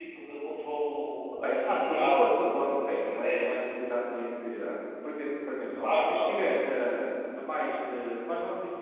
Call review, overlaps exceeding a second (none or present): present